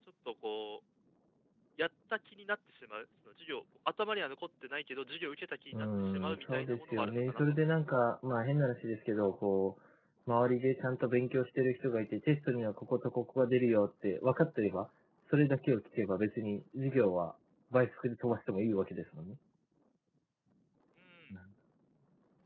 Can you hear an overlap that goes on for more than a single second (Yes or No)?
Yes